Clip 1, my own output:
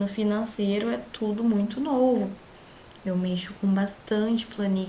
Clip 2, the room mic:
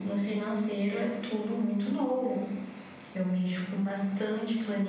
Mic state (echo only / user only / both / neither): echo only